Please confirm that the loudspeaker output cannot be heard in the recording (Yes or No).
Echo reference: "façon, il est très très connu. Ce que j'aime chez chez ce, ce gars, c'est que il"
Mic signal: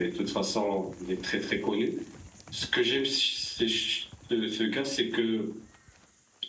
No